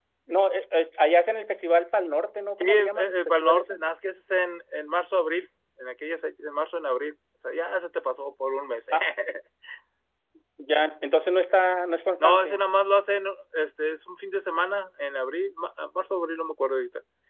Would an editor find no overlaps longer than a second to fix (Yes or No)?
No